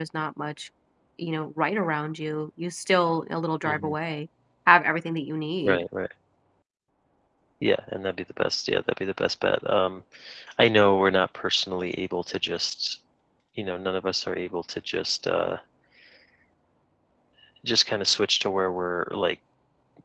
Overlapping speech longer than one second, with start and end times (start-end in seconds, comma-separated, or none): none